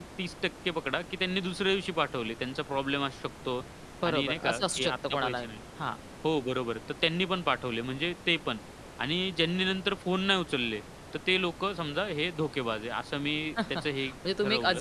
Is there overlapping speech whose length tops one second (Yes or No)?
Yes